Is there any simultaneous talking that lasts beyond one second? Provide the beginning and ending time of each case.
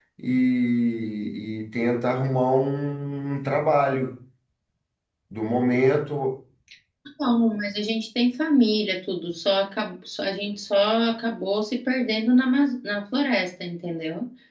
none

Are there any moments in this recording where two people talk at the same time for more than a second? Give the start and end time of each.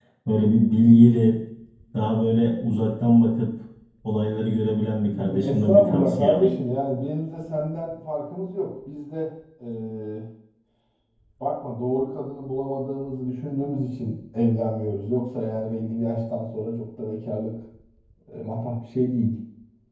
5.2-6.5

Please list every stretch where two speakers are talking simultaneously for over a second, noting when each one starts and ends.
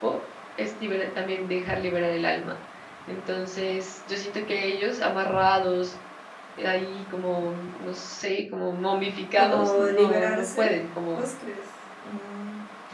9.4-10.7

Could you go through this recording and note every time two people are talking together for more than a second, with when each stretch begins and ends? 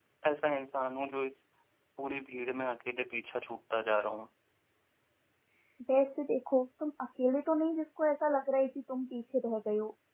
none

